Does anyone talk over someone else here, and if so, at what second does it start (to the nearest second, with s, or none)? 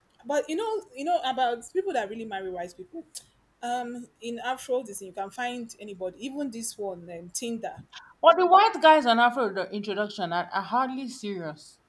none